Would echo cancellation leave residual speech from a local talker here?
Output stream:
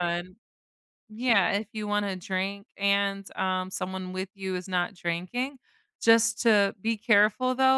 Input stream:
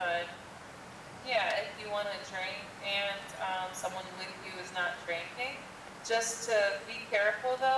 No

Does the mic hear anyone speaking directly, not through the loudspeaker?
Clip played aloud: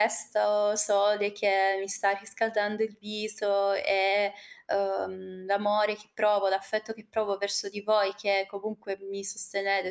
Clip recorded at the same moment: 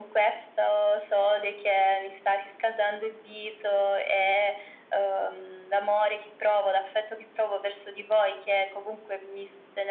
No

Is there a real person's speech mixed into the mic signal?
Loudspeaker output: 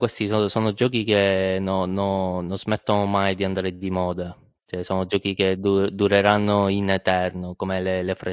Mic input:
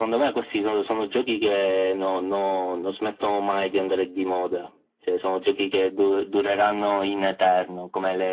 No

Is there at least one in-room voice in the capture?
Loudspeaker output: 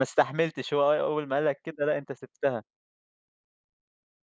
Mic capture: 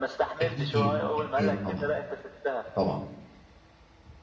Yes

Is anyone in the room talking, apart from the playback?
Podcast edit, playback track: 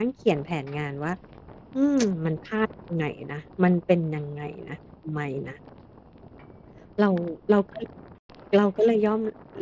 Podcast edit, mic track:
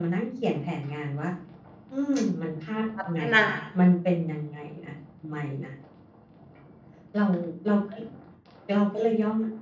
Yes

